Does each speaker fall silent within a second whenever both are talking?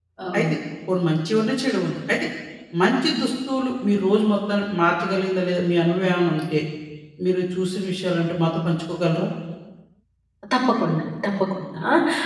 Yes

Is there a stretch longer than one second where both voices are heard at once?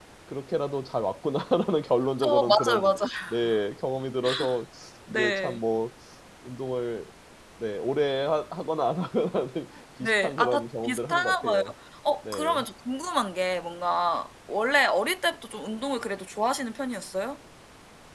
Yes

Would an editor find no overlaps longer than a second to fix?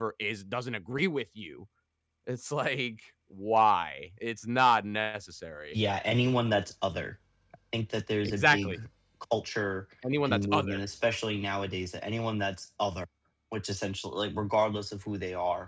Yes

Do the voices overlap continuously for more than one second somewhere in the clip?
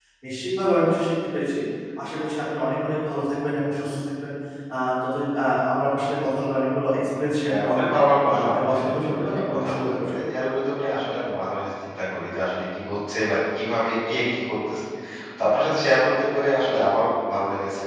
Yes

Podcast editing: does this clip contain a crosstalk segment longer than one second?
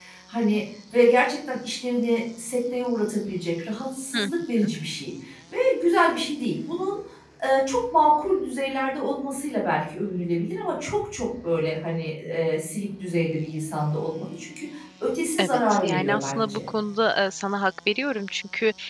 Yes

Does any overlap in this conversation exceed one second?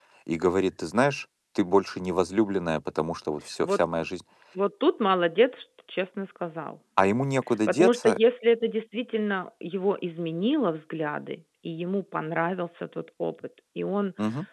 No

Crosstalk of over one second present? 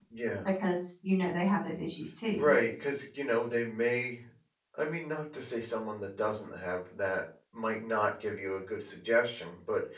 No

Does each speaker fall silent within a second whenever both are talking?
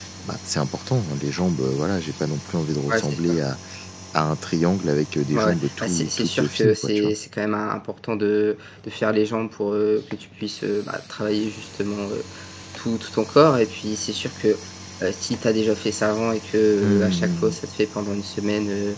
No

